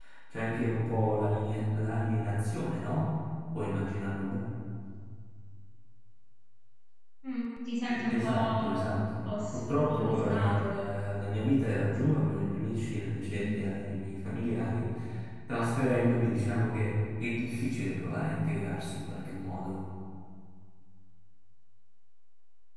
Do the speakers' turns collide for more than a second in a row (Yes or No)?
Yes